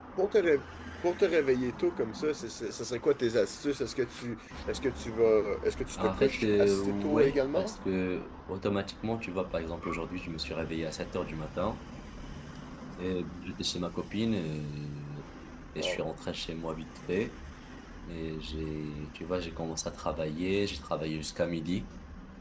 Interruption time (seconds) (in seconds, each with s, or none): 6.0 s